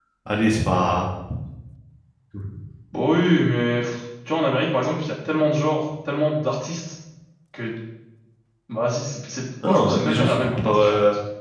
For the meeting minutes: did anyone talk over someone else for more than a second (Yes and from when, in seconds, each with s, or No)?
Yes, from 9.6 s